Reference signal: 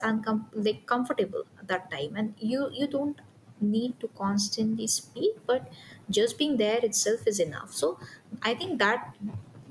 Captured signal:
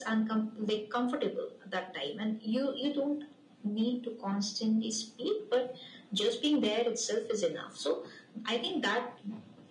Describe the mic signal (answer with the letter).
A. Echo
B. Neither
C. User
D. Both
A